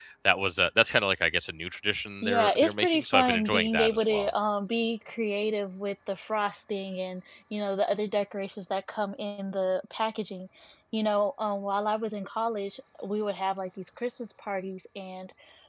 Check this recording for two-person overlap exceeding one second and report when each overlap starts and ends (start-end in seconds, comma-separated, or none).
2.2-4.3